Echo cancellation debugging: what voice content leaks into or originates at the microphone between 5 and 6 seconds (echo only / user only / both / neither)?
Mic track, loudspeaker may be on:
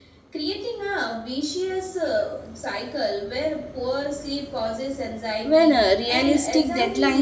both